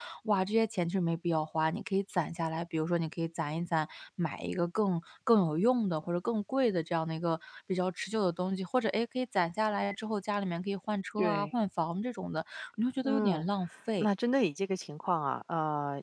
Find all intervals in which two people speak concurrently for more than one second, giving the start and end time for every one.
none

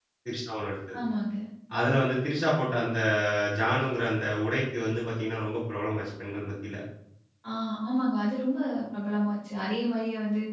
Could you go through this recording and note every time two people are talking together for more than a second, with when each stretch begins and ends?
none

